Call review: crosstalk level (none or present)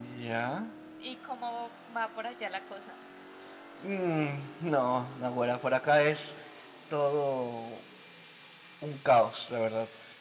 none